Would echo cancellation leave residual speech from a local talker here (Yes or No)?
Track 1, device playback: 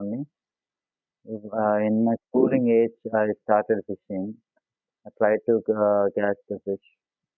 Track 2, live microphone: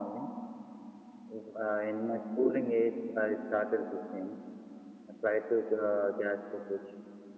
No